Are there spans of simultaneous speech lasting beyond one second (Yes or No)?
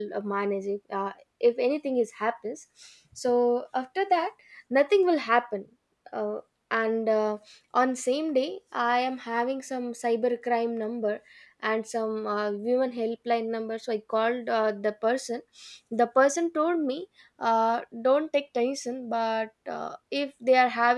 No